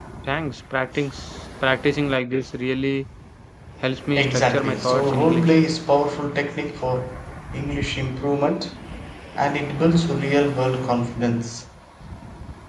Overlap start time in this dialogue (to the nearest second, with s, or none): 4 s